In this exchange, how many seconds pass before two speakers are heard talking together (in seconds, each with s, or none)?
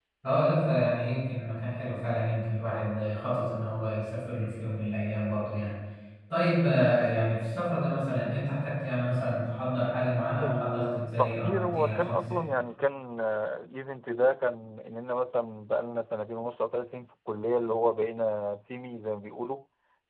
10.4 s